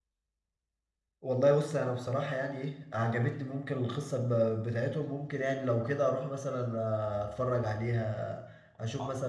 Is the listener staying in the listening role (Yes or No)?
No